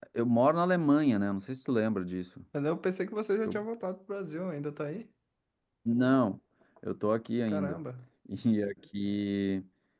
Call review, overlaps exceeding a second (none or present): none